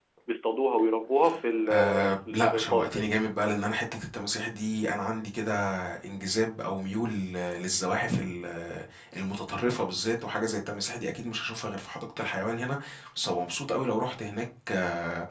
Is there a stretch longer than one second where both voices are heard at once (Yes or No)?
Yes